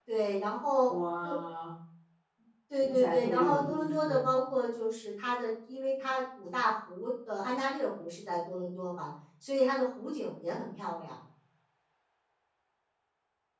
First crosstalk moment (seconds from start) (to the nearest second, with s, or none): 3 s